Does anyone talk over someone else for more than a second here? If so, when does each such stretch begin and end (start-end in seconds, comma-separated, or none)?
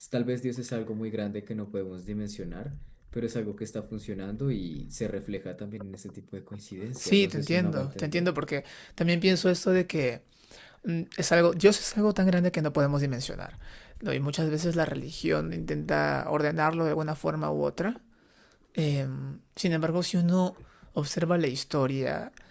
7.0-8.3